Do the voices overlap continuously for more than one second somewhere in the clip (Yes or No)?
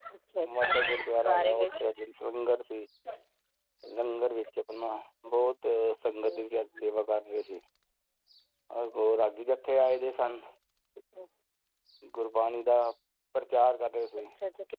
Yes